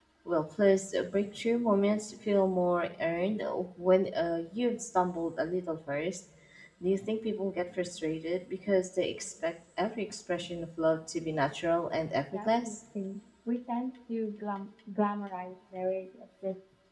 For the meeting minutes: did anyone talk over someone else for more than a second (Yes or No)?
No